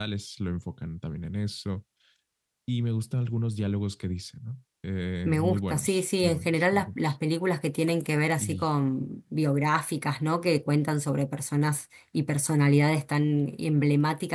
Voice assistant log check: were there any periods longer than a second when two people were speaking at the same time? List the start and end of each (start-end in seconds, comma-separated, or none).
5.2-7.1